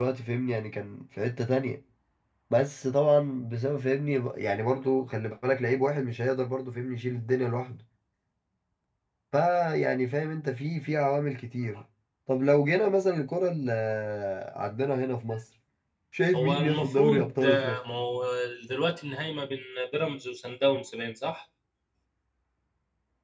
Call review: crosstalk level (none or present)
present